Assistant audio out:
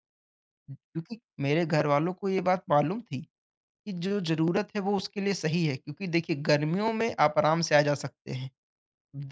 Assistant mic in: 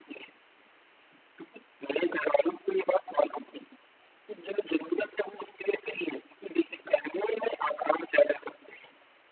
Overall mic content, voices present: echo only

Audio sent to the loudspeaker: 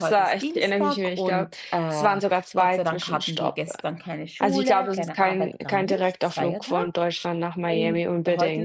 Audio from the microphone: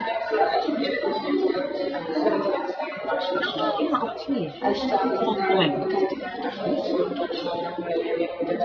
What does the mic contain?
both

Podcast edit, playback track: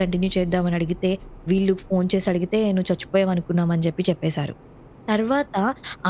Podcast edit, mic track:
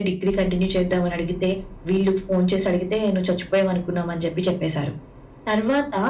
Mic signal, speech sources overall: echo only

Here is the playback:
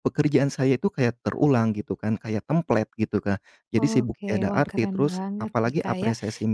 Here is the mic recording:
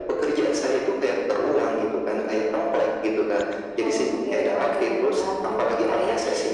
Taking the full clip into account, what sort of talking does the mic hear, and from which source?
echo only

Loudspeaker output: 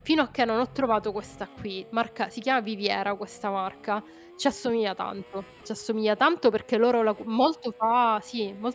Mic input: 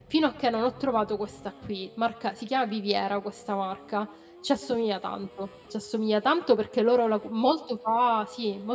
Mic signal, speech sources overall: echo only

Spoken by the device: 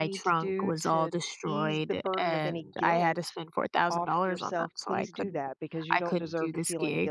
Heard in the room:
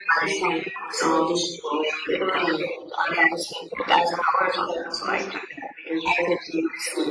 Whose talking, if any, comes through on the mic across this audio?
echo only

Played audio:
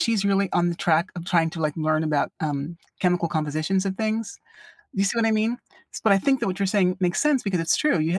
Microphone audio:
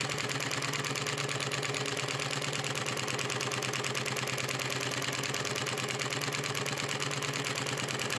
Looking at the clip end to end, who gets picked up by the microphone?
neither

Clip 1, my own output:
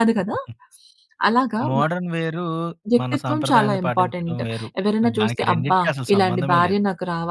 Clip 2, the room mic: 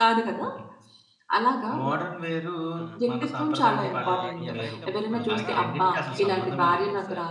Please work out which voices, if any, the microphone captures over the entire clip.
both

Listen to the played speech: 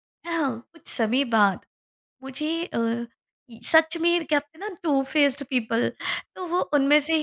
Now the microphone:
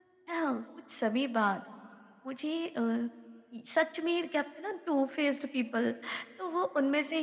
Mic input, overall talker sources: echo only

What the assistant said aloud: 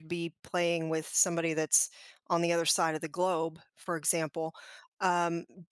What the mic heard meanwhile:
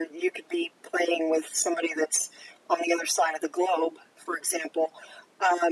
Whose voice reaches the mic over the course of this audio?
echo only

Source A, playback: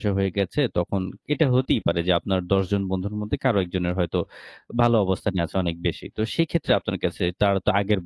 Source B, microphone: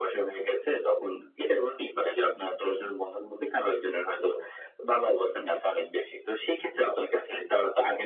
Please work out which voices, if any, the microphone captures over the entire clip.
echo only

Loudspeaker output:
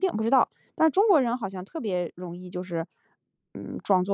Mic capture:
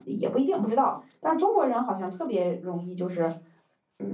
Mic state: echo only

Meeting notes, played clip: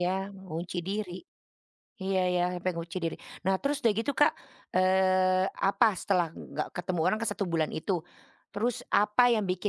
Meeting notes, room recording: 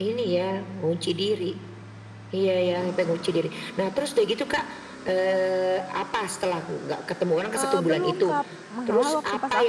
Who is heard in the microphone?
both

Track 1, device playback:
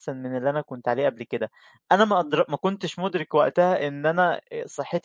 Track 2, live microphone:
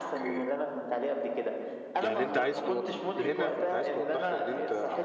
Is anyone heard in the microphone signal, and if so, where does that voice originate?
both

